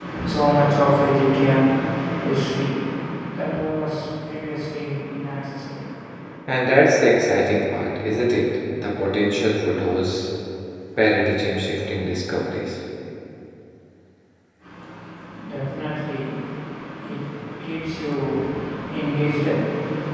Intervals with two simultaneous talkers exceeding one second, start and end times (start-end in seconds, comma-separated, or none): none